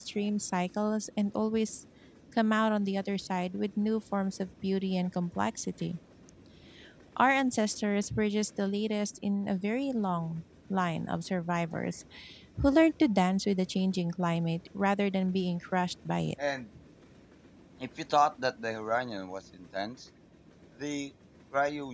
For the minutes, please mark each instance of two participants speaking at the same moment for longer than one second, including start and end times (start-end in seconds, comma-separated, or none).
none